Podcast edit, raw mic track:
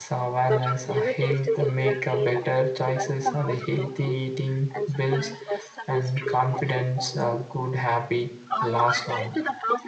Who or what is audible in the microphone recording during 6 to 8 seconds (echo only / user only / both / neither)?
both